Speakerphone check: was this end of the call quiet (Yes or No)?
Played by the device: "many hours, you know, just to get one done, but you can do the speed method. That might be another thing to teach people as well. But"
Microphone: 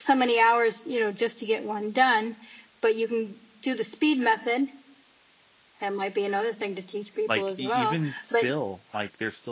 No